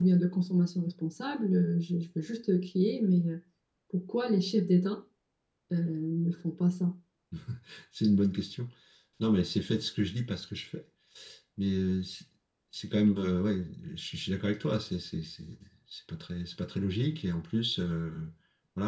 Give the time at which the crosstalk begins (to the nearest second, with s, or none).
none